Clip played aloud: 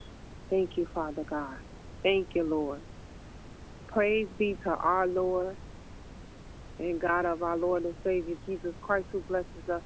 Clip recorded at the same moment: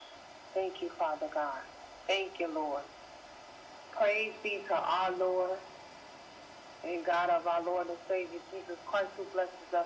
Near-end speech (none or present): none